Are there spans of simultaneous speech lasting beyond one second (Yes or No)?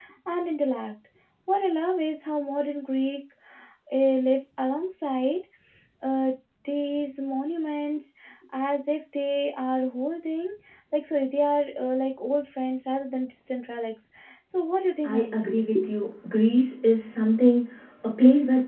No